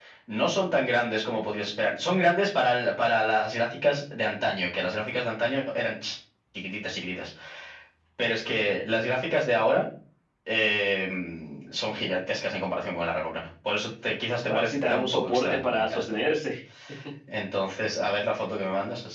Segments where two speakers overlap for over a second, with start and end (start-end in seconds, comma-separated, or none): 14.5-16.0